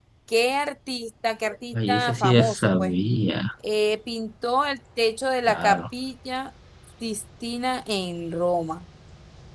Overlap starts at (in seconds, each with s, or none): 1.7 s